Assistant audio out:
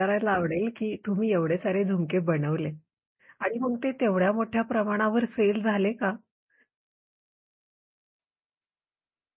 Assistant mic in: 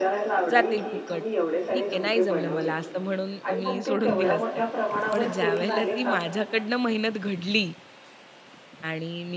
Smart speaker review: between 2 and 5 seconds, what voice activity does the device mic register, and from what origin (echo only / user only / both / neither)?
both